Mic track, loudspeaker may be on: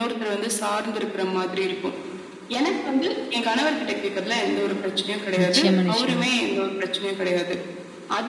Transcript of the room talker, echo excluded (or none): நிச்சயமா, நிச்சயமா.